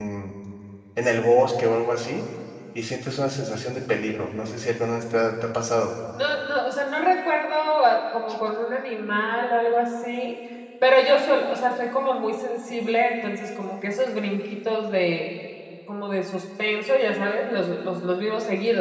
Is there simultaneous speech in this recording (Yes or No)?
No